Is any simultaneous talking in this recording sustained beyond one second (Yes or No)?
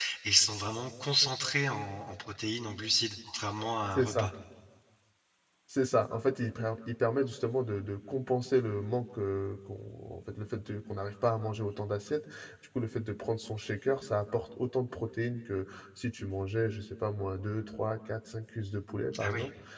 No